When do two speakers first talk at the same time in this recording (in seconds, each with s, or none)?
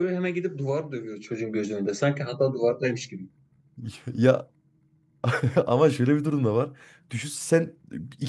none